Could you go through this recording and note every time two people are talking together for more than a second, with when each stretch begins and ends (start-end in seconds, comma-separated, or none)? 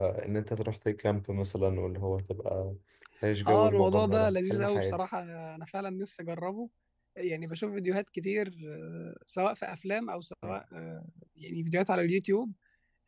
3.5-5.0